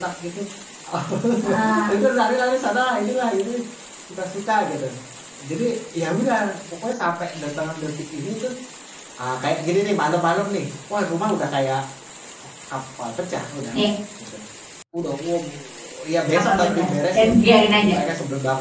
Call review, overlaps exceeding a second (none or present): present